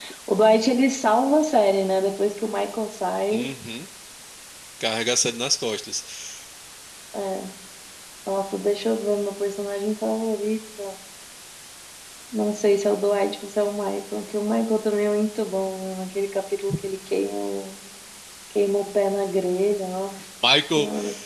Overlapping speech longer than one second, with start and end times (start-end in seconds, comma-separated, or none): none